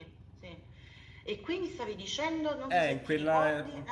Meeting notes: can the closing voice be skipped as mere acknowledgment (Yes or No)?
No